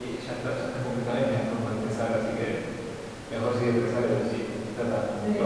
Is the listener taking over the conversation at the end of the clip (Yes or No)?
Yes